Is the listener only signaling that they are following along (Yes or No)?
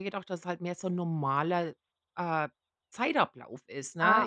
Yes